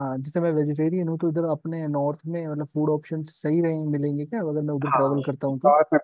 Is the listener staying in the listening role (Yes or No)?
No